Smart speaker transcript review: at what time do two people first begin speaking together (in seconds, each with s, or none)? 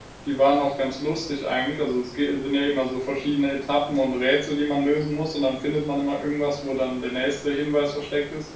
none